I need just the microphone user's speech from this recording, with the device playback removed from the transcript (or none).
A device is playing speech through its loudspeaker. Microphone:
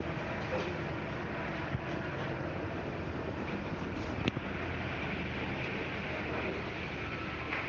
none